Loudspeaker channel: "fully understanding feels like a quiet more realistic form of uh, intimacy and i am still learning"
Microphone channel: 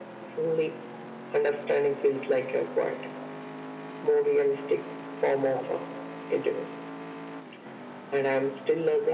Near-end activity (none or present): none